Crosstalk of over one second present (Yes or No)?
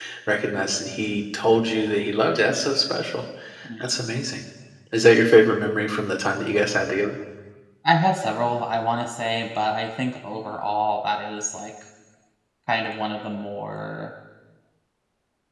No